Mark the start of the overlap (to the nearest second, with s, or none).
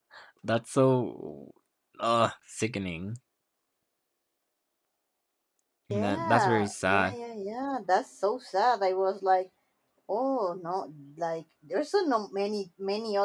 6 s